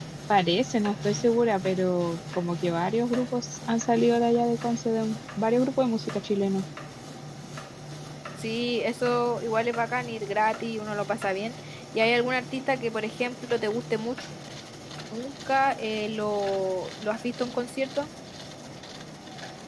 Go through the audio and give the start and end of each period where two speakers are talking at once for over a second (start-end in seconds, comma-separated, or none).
none